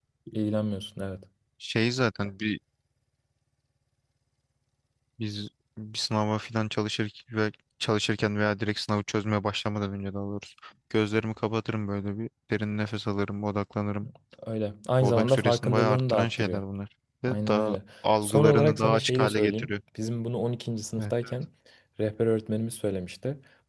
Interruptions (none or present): present